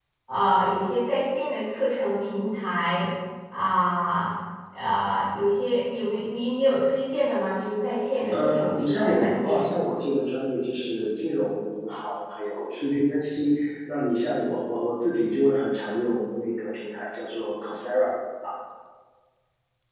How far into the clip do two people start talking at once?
8.3 s

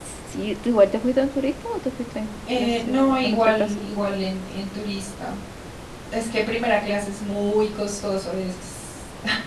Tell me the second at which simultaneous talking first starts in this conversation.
2.5 s

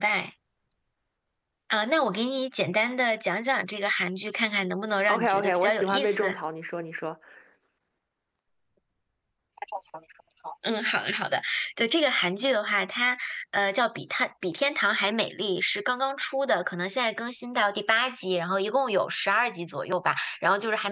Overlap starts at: 5.1 s

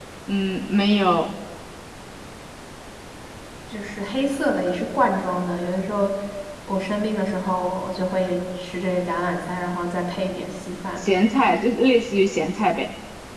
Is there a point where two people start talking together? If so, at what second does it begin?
none

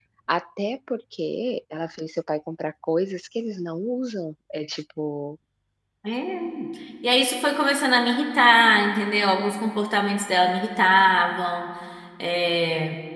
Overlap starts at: none

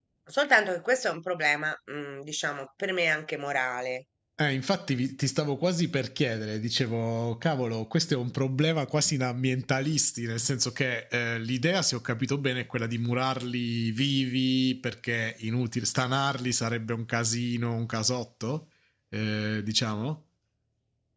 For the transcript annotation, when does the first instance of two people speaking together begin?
none

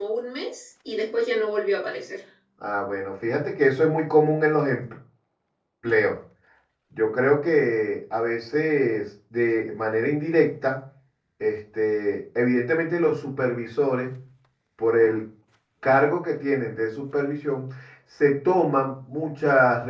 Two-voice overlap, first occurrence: none

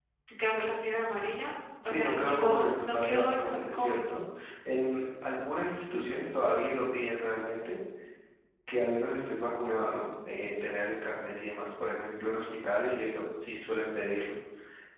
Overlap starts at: 1.8 s

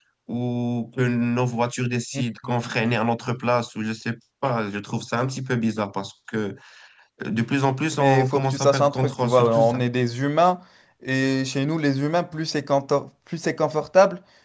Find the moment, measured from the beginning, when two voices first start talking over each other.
8.0 s

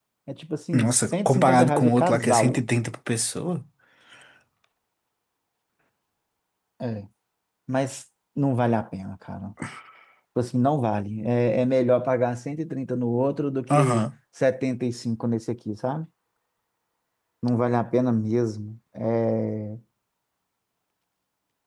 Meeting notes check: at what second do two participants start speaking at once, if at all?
0.7 s

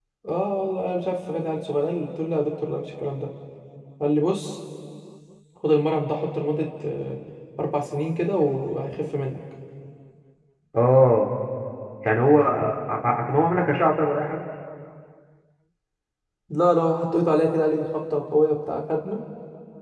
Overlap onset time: none

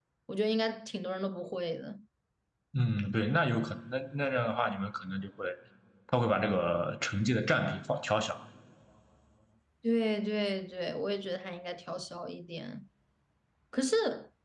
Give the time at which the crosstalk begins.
none

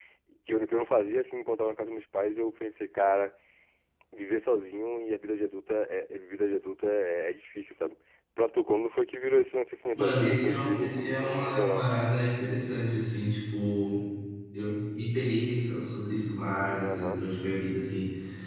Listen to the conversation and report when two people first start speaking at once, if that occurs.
9.9 s

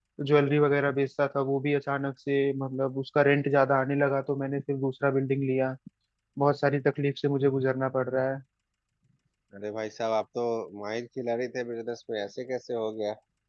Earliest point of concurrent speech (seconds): none

